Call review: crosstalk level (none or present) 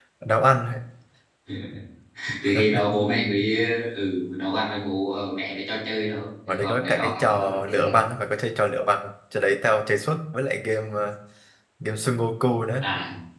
present